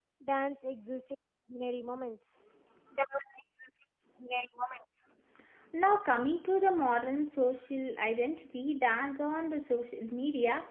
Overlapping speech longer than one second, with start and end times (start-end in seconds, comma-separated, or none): none